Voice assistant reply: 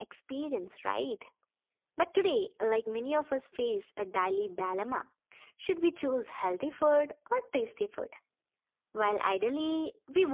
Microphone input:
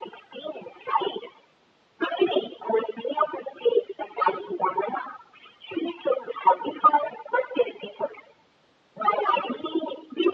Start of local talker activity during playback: none

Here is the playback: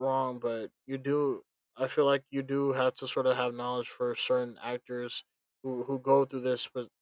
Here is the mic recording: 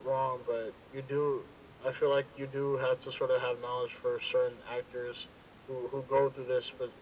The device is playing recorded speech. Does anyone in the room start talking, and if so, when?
none

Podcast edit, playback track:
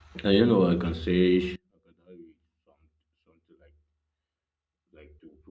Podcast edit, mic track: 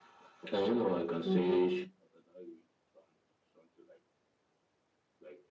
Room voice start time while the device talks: 1.2 s

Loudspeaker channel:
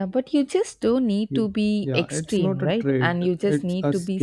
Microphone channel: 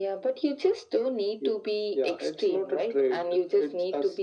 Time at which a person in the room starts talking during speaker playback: none

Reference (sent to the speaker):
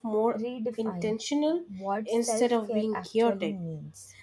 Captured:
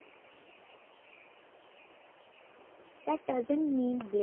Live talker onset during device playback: 3.0 s

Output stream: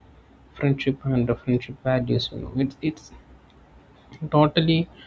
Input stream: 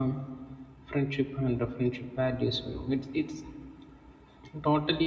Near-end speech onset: none

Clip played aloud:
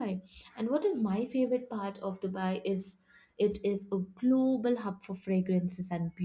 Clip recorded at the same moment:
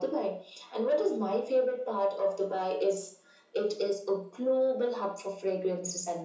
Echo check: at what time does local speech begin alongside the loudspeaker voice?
none

